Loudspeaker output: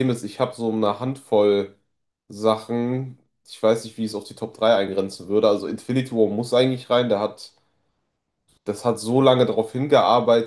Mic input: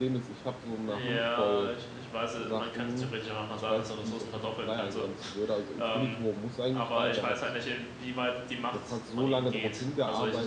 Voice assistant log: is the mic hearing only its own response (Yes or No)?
No